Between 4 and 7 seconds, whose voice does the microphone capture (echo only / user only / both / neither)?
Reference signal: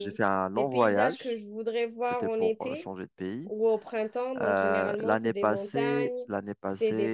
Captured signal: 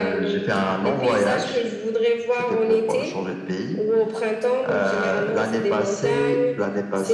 echo only